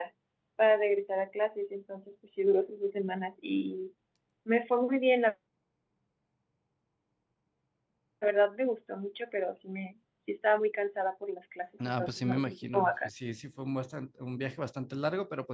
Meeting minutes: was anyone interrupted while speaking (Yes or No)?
Yes